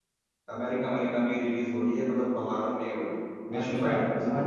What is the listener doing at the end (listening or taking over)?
taking over